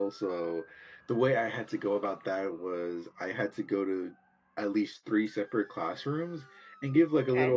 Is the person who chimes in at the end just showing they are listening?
Yes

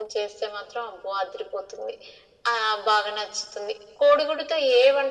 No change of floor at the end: Yes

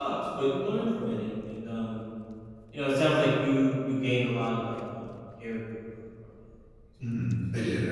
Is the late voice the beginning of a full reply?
Yes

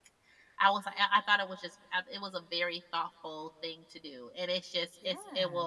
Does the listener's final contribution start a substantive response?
No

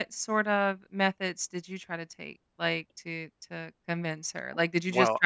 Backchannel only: Yes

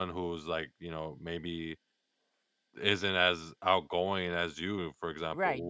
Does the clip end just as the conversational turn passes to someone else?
Yes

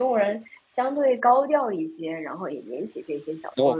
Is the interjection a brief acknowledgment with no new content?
No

